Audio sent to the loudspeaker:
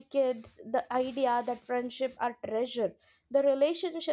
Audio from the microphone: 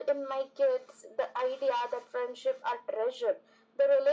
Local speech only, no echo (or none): none